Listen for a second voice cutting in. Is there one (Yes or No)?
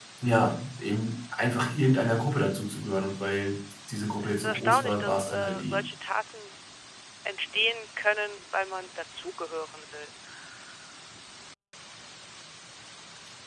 Yes